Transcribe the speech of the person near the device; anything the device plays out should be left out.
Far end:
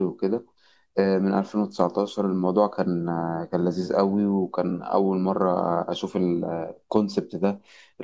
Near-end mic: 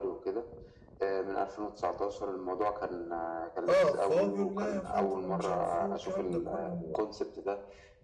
اه فهو بيقول لا يا فندم ومش عارف ايه والكلام ده كله

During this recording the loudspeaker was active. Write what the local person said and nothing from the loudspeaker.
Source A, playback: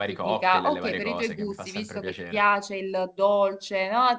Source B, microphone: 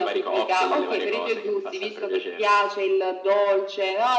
none

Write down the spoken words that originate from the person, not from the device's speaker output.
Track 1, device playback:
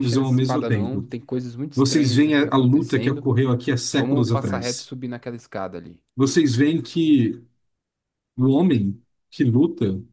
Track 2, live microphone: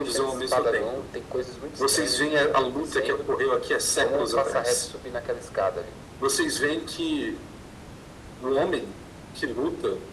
none

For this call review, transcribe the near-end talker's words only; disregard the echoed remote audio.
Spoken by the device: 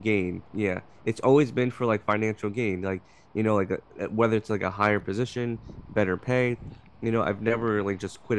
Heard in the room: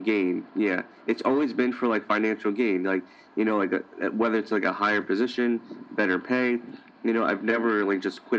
none

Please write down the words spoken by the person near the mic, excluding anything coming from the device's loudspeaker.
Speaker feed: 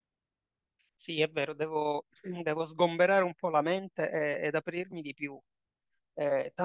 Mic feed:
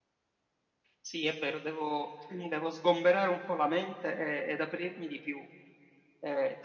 none

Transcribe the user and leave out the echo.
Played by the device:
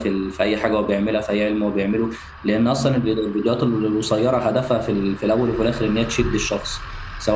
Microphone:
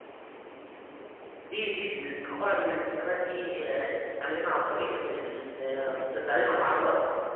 دي دي القواعد والالتزامات دي آه، انت تتعلمها عن طريق ال... ال... تتعلمها مع الوقت

